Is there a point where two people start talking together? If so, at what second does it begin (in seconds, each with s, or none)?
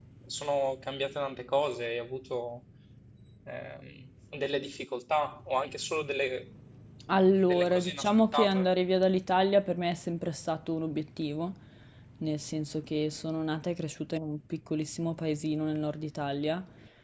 7.5 s